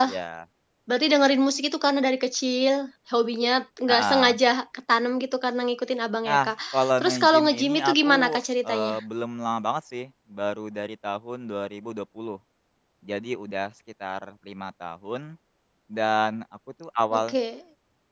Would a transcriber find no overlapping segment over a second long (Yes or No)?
No